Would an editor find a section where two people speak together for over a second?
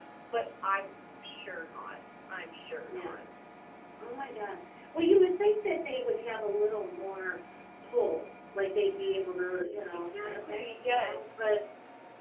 Yes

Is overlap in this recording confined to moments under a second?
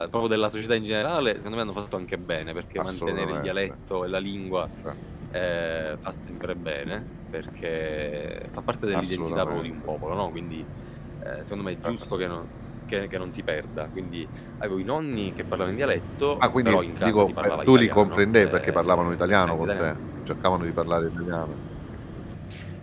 No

